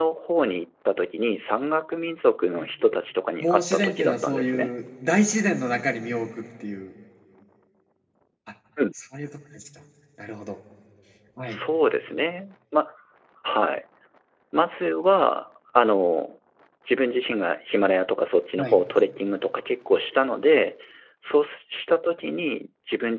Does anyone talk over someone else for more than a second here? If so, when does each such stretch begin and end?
3.4-4.7

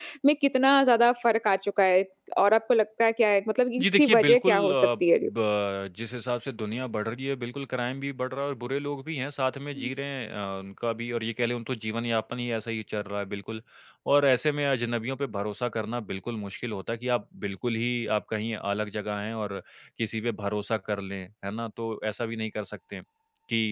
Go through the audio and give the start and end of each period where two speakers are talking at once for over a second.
3.8-5.3

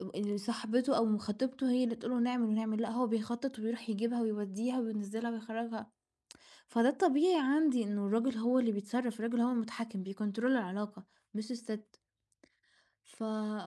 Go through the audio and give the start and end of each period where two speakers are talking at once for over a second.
none

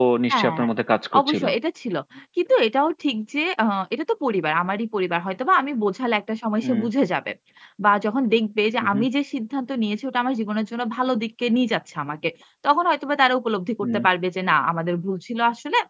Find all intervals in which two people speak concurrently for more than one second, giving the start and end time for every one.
none

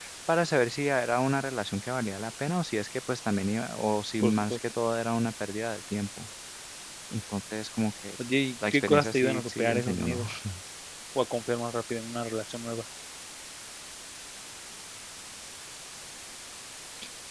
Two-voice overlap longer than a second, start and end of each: 8.7-10.2

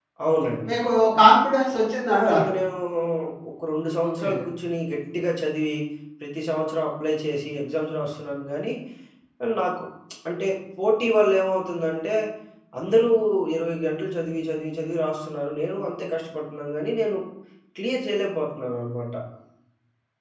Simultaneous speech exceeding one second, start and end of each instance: none

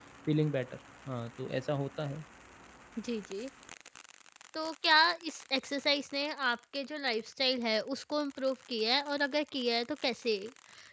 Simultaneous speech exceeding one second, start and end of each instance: none

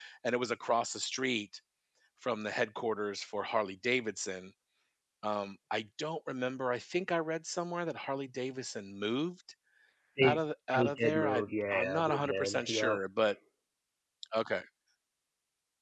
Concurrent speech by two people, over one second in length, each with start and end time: 10.8-13.0

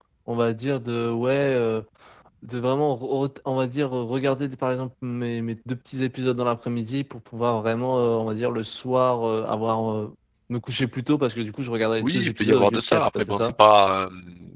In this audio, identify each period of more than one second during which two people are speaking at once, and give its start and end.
12.0-13.5

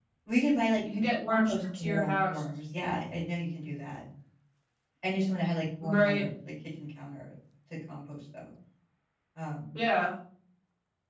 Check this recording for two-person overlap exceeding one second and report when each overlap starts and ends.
1.0-2.4

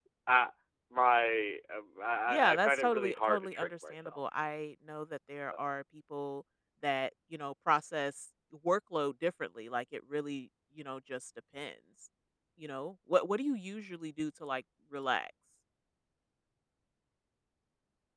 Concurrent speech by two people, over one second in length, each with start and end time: 2.3-4.2

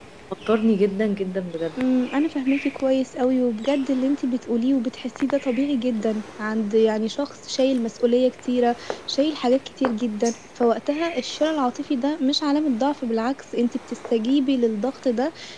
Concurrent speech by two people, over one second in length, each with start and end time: none

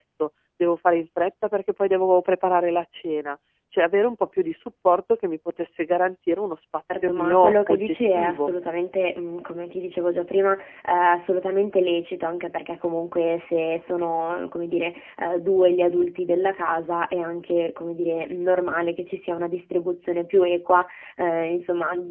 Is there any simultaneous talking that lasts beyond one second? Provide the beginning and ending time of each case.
6.9-8.5

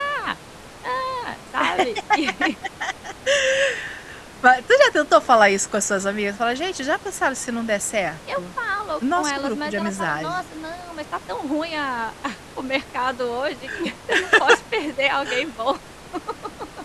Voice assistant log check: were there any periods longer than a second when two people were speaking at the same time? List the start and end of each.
9.2-10.4

